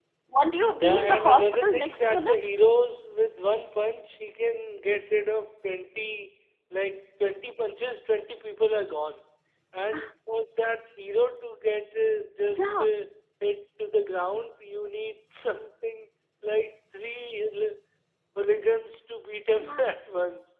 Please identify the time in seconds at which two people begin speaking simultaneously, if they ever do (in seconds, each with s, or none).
0.8 s